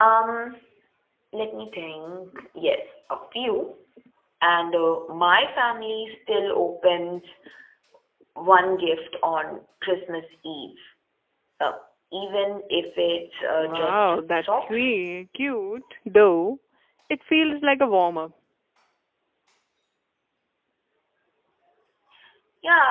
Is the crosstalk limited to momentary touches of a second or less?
No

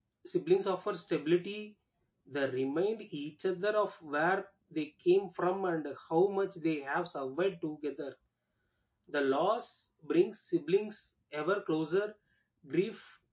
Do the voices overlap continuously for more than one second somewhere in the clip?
No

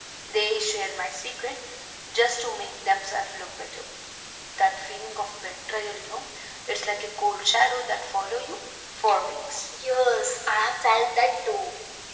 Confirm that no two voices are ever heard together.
Yes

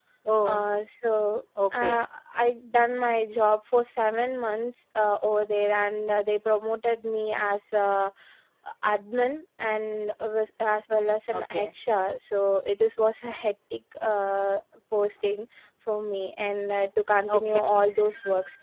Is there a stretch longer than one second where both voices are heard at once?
No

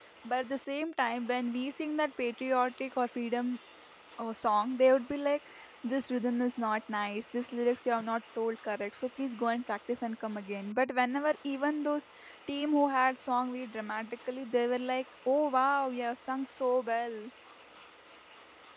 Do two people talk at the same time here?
No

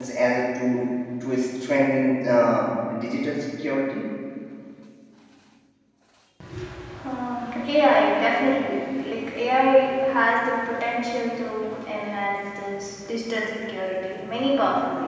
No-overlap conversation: Yes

